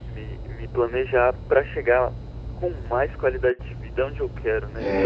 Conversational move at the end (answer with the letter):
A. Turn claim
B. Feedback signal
A